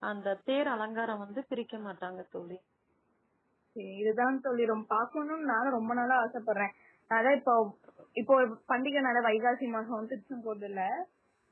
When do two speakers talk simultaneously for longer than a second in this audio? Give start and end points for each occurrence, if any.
none

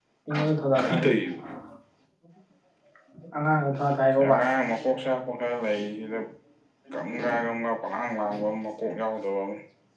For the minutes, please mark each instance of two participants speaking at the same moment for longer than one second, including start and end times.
none

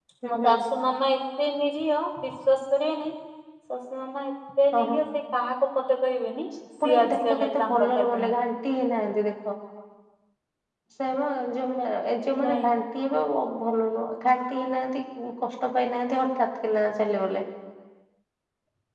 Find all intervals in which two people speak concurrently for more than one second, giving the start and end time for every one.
6.8-8.3

